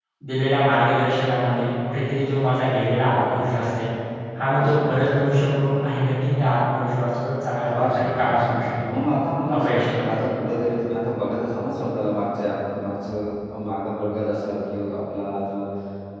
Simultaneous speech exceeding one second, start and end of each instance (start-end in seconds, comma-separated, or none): 7.7-8.9